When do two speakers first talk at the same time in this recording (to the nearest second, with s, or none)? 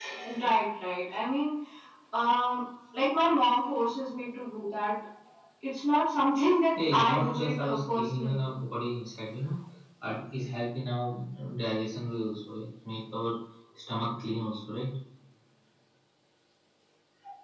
7 s